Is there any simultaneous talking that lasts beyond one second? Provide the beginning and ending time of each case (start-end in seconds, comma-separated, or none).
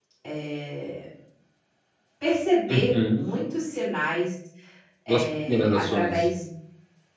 5.1-6.3